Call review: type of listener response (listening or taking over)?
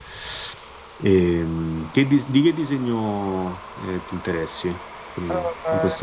taking over